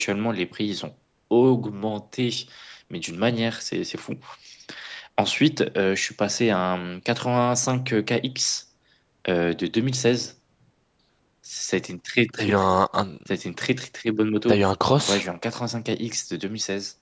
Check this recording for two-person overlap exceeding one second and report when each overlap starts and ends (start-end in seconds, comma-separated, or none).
none